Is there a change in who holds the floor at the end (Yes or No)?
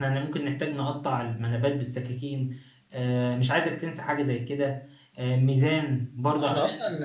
Yes